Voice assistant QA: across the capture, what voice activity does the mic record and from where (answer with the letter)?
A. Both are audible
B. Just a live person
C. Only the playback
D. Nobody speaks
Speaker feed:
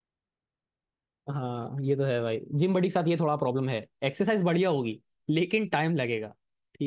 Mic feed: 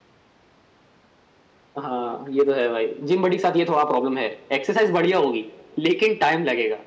C